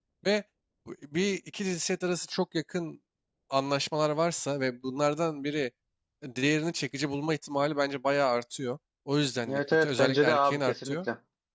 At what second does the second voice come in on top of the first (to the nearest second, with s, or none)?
9 s